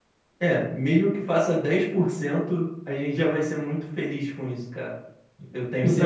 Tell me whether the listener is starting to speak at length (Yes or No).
Yes